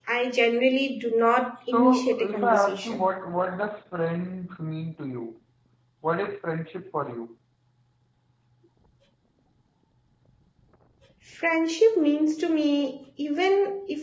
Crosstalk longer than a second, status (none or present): present